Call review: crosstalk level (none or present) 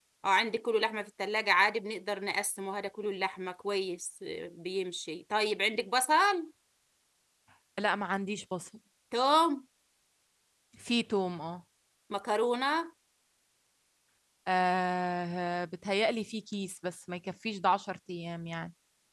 none